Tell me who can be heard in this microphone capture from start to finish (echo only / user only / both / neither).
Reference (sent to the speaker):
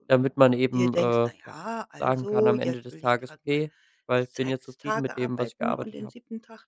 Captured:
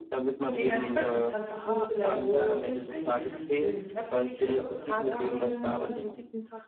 both